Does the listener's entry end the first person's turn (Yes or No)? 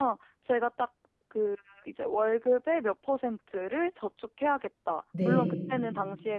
No